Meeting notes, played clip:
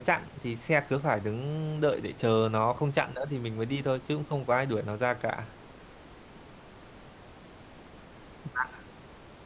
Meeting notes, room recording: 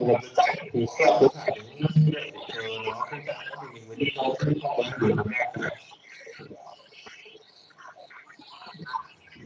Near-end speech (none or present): present